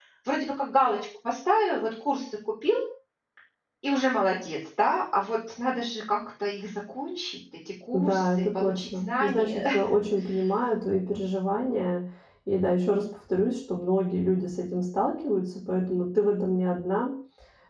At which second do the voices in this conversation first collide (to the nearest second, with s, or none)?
8 s